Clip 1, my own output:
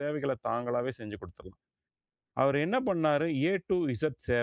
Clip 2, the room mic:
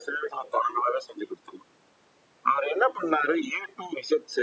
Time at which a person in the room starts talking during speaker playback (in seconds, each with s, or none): none